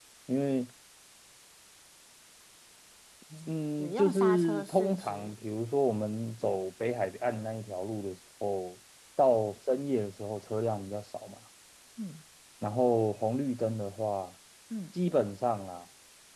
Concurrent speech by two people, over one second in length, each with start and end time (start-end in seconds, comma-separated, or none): 3.8-5.3